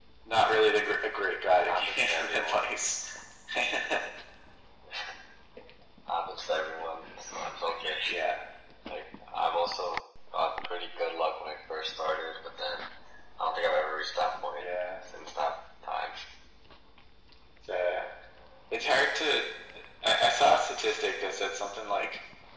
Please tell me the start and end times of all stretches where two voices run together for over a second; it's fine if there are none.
1.4-2.7

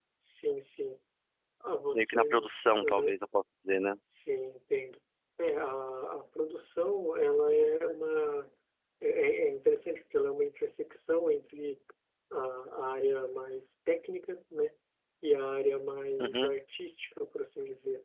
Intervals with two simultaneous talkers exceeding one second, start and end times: 1.9-3.1

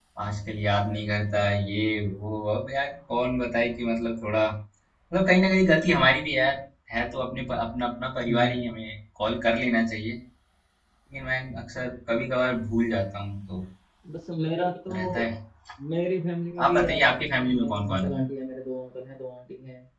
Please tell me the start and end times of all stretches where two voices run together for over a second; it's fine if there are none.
16.7-18.2

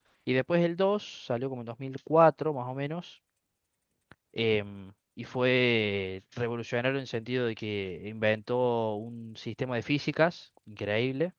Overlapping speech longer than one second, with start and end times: none

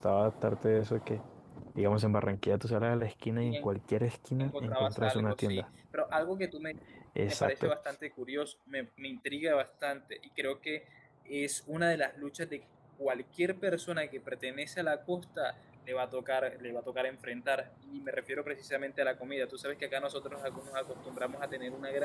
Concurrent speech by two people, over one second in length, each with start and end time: 4.4-5.6

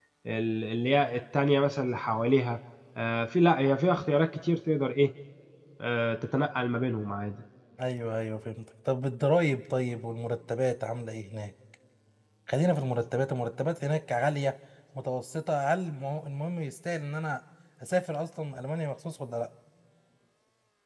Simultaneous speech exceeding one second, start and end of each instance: none

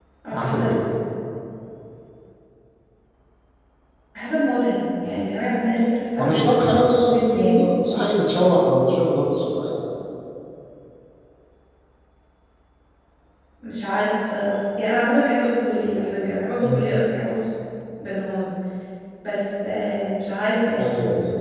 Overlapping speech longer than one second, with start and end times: 6.2-7.7

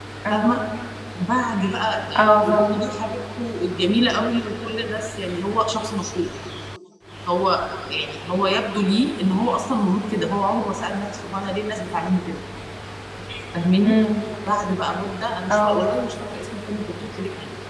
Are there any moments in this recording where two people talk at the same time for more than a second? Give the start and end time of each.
none

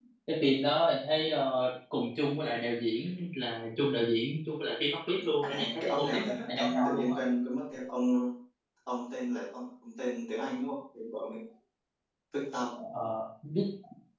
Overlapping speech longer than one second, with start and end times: 5.4-7.2

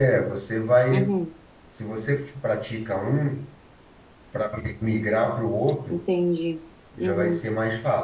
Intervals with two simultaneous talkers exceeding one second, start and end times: none

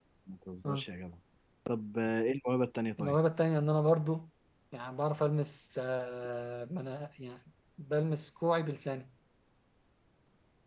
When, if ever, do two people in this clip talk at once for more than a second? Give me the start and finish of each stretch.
none

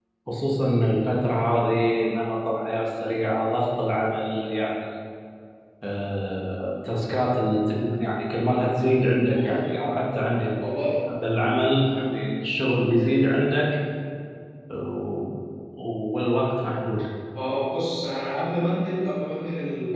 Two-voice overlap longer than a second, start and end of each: none

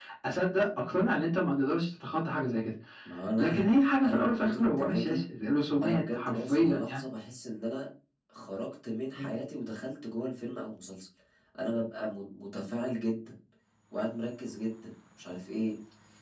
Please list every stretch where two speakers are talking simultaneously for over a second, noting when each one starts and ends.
3.4-5.2, 5.8-7.0

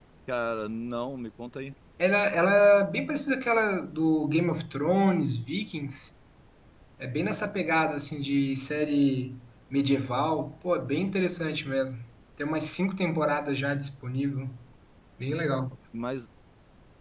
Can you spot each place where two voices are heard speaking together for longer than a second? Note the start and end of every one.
none

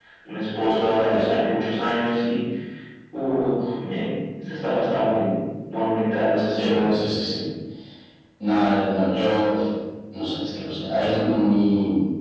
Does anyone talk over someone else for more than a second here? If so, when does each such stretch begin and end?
none

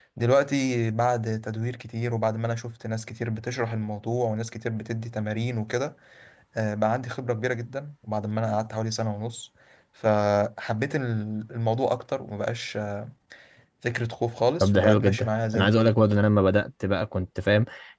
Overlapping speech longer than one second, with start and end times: 14.6-15.9

